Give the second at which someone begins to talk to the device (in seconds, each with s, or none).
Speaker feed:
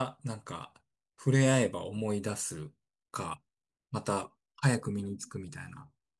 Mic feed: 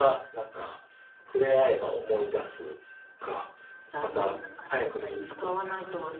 3.9 s